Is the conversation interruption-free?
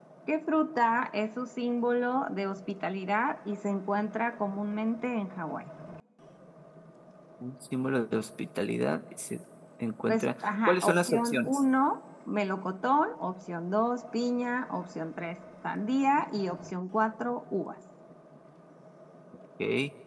No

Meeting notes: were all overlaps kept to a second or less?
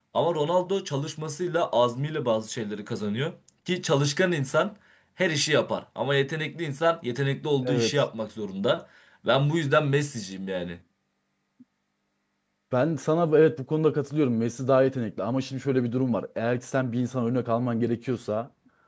Yes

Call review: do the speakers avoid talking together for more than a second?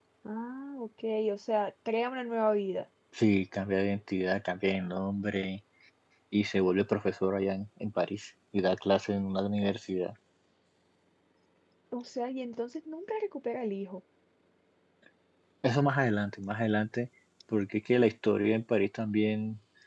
Yes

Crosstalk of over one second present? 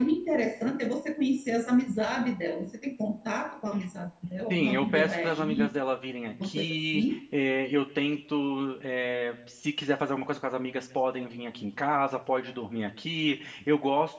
Yes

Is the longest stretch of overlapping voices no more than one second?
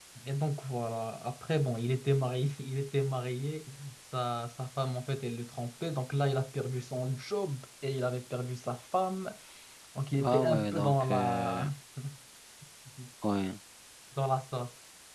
No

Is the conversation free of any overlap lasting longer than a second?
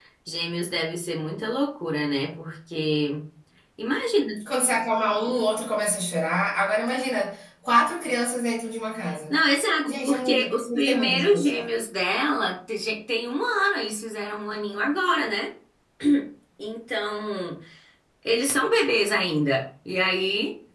No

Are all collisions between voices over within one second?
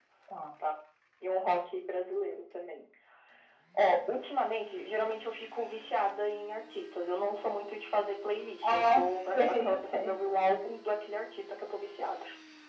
No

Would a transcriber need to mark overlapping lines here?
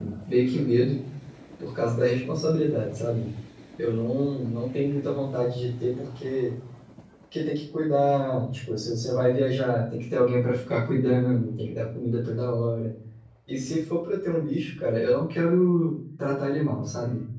No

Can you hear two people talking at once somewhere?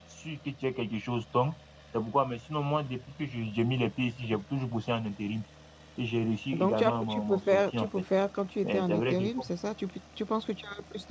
Yes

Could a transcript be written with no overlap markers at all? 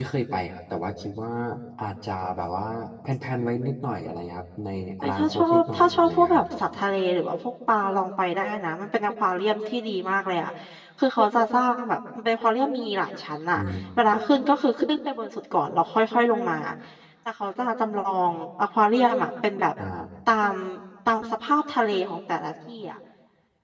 No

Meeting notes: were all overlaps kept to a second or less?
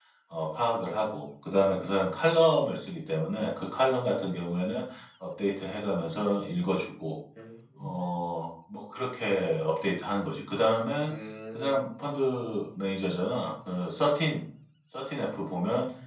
Yes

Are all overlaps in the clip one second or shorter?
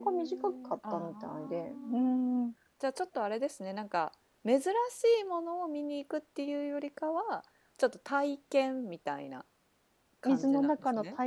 No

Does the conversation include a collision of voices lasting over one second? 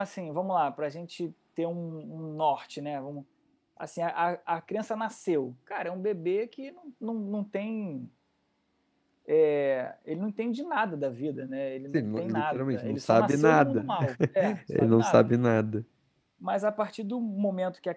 Yes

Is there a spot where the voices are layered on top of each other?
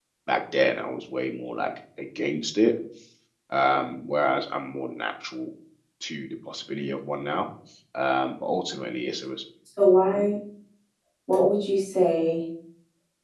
No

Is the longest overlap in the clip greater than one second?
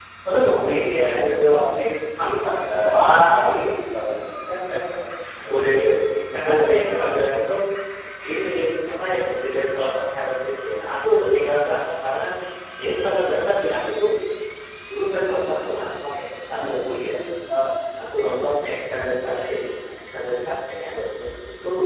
Yes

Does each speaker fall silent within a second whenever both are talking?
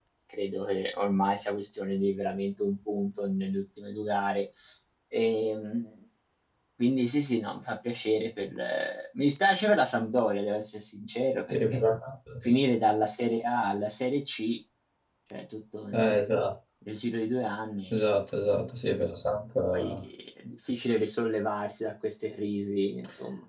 Yes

